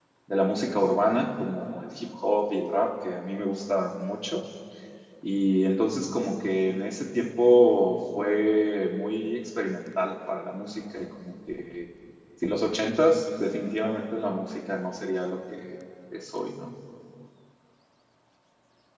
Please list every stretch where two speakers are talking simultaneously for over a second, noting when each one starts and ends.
none

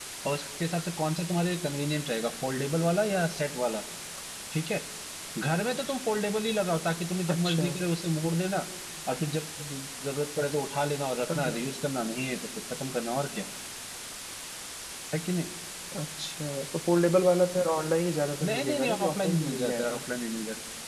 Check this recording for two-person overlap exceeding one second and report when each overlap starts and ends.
18.4-20.0

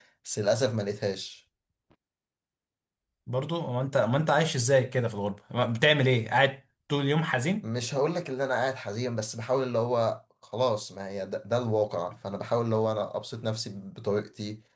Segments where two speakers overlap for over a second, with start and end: none

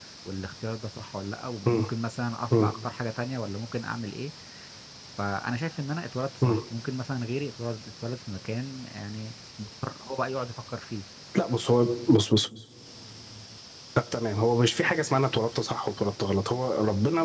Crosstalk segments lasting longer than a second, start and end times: none

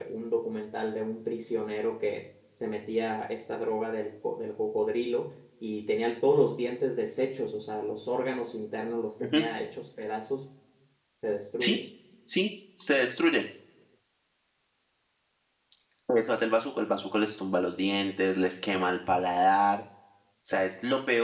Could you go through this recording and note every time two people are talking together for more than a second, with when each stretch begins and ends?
none

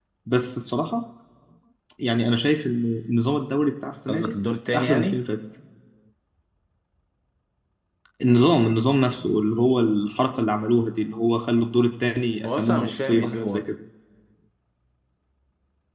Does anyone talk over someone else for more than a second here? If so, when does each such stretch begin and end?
12.4-13.8

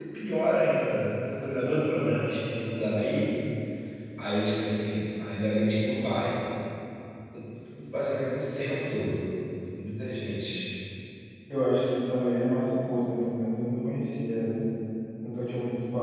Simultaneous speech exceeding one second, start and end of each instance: none

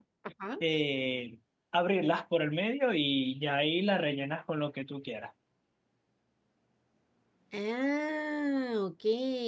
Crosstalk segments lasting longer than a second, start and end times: none

